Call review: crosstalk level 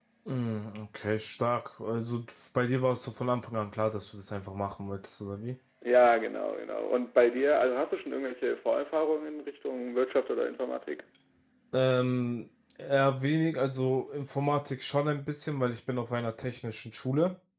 none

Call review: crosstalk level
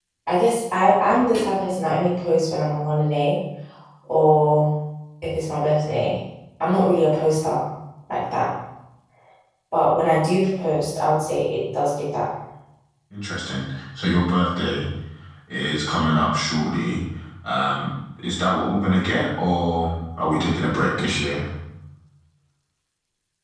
none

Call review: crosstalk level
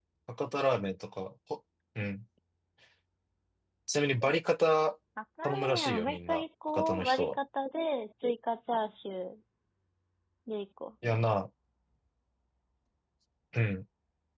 present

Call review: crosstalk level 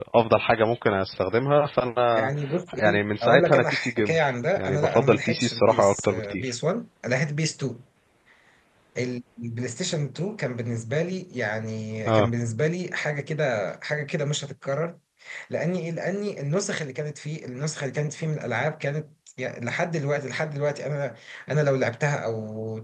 present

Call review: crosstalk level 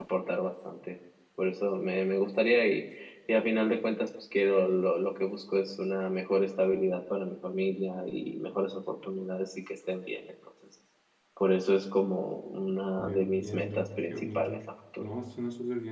present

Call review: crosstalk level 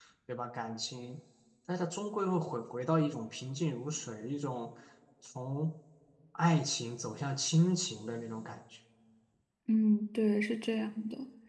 none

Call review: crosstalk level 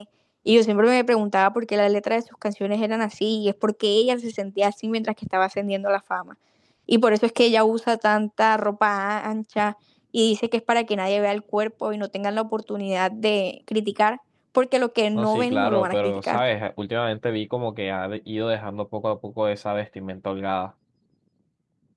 present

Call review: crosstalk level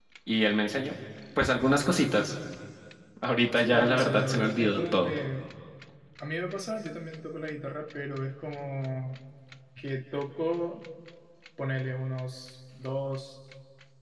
present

